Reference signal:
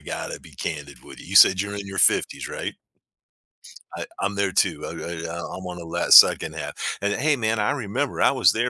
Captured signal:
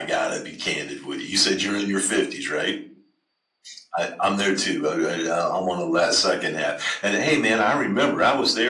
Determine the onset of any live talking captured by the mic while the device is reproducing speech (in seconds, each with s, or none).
none